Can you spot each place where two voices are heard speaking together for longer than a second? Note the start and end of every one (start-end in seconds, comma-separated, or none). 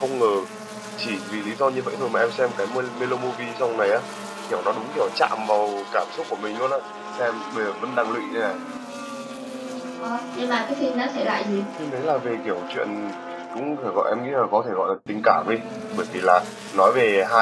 none